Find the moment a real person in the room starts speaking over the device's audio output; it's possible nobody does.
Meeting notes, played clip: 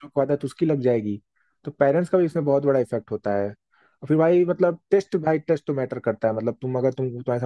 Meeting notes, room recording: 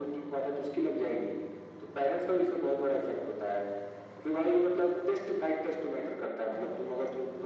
none

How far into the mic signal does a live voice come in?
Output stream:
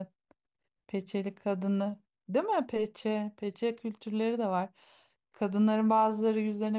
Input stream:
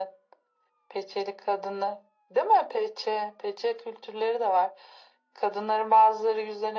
none

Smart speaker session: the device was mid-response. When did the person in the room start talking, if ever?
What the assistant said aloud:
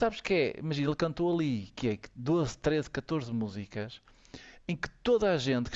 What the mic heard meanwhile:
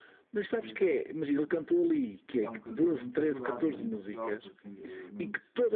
0.6 s

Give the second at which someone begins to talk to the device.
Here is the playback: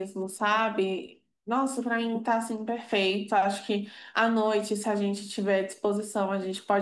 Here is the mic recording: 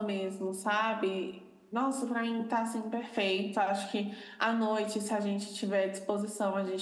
none

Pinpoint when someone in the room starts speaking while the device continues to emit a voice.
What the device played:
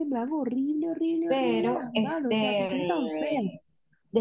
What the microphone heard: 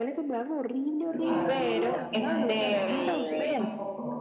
1.1 s

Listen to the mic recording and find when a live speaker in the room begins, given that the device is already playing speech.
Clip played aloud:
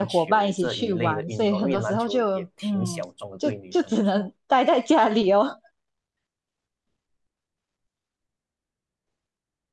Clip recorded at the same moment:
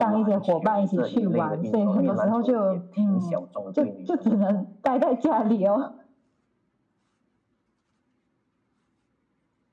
none

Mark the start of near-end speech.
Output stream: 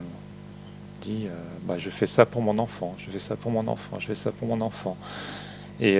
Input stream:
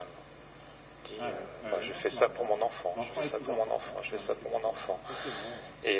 1.2 s

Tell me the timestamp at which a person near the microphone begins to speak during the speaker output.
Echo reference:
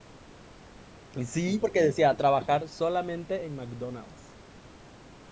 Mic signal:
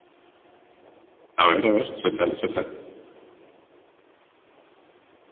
1.4 s

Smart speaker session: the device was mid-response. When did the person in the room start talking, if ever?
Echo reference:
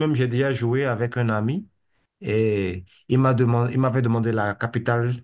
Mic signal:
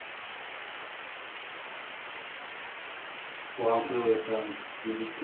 3.5 s

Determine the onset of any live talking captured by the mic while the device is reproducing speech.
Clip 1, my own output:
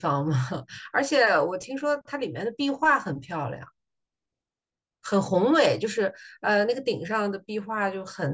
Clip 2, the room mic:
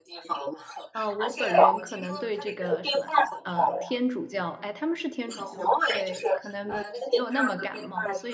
0.9 s

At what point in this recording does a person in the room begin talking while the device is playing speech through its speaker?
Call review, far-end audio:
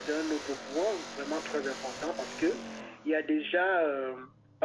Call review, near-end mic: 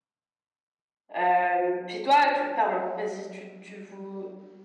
1.2 s

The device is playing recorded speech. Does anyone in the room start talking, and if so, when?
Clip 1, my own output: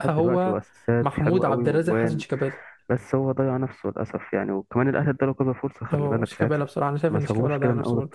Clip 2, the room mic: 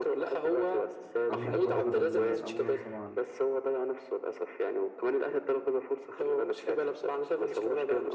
1.3 s

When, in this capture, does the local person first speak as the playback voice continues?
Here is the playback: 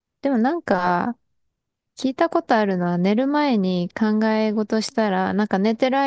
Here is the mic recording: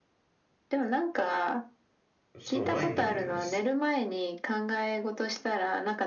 2.4 s

